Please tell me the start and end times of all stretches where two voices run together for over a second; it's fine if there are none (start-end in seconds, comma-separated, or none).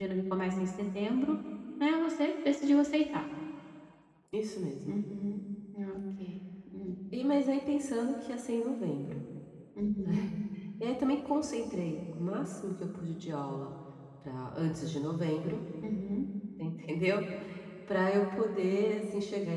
none